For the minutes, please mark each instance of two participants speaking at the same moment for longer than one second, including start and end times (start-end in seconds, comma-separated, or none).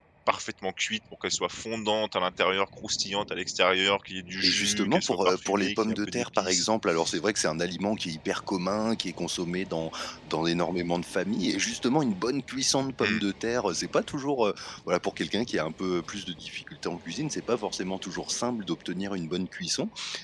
4.4-6.7